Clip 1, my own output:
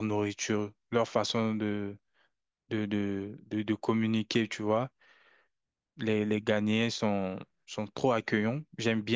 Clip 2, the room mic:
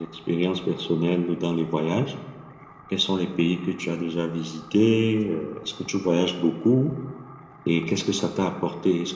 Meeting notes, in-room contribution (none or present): present